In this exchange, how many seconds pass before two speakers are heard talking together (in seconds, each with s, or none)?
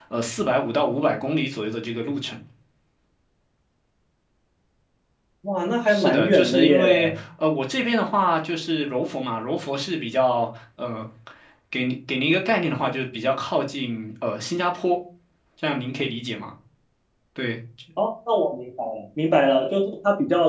5.9 s